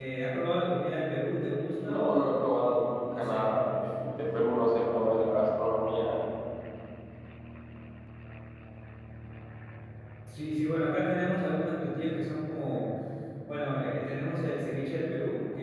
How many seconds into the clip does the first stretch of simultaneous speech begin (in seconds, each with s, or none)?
1.9 s